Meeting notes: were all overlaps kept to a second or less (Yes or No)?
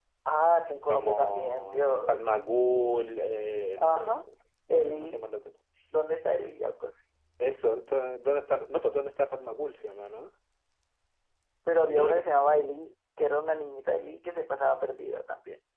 No